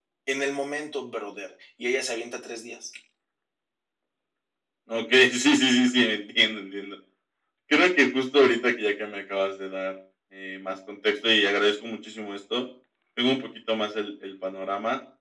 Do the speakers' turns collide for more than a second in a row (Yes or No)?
No